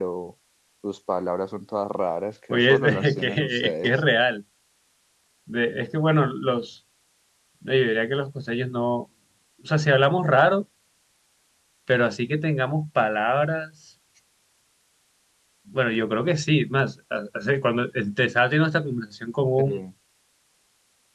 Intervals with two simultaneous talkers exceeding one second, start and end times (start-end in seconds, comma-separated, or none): 2.5-3.9